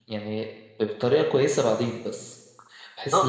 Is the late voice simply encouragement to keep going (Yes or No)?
No